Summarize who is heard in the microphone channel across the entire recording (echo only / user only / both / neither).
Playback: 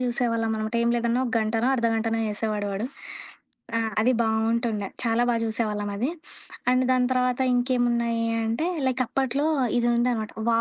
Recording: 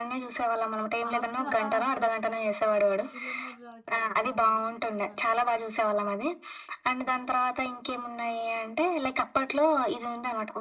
both